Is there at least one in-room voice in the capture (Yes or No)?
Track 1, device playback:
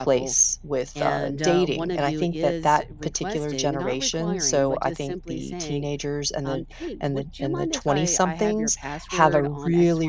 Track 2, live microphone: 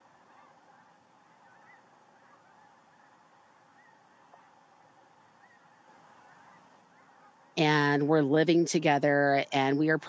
Yes